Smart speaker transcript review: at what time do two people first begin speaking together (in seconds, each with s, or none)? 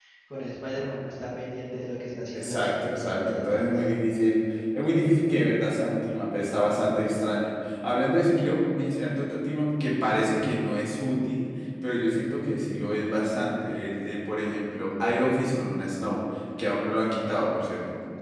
2.3 s